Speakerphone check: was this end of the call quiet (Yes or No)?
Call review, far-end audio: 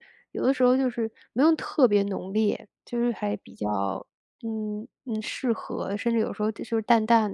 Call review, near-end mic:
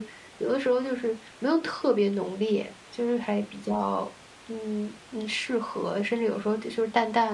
Yes